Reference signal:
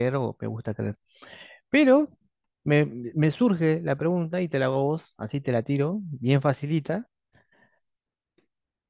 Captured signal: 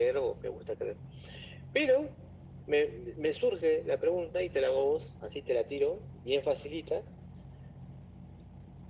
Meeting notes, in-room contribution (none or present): none